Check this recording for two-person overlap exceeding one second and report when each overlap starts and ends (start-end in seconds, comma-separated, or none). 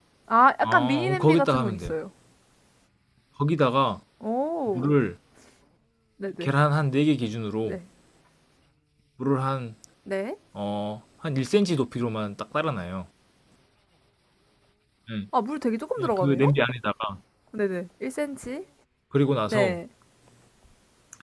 0.6-1.9